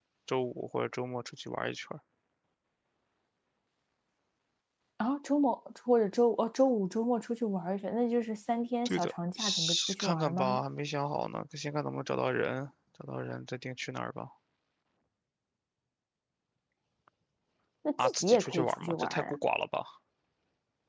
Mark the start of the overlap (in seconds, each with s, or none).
8.8 s